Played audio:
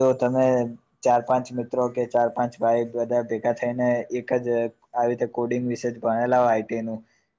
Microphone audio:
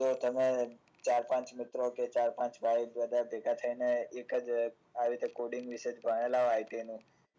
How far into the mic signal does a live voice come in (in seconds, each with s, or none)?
none